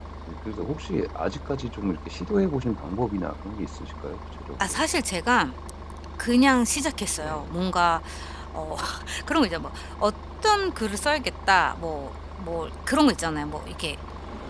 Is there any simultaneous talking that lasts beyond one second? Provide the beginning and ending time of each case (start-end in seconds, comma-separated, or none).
none